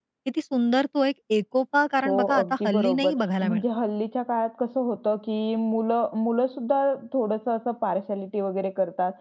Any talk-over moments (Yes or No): Yes